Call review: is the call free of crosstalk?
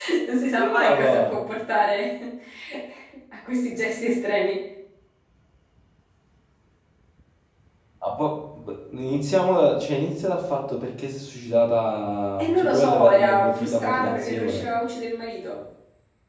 No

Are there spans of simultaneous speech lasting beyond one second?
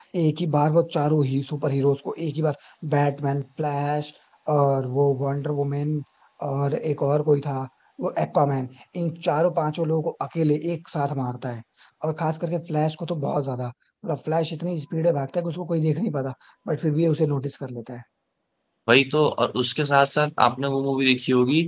No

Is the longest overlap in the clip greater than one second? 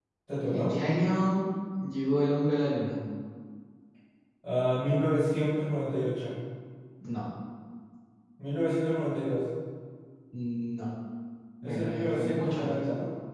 Yes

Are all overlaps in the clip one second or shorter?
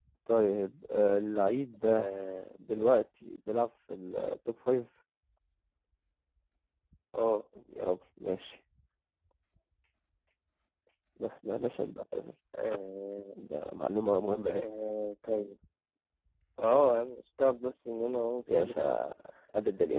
Yes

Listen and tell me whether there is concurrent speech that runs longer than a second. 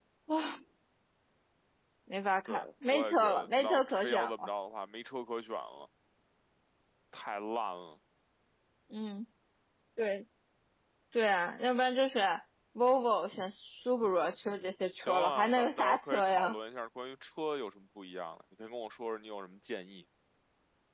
Yes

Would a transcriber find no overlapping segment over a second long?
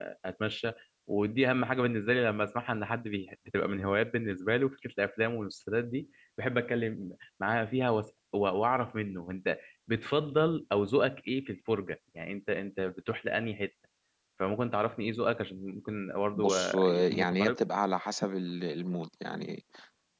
No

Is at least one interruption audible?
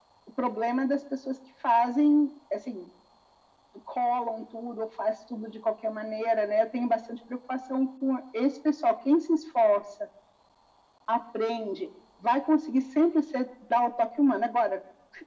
No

